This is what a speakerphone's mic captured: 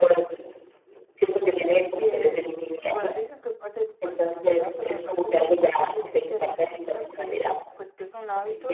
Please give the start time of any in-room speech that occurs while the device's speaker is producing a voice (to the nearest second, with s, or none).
2 s